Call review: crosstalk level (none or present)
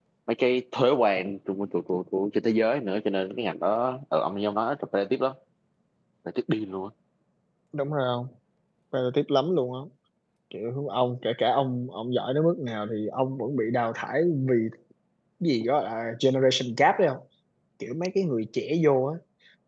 none